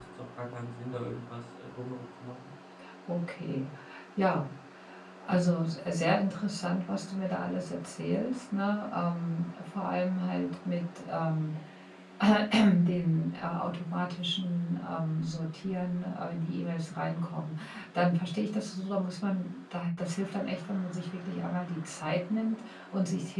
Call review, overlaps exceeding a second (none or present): none